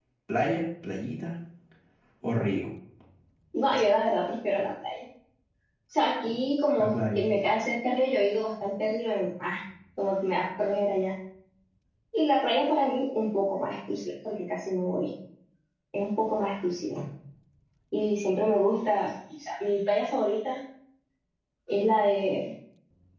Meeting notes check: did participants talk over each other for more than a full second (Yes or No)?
No